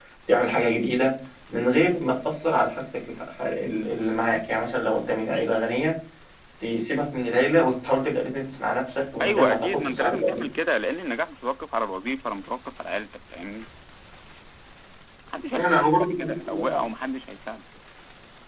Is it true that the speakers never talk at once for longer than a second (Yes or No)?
No